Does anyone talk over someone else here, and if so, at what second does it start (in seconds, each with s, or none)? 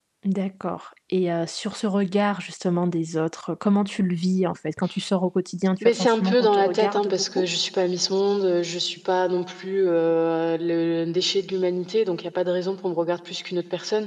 5.8 s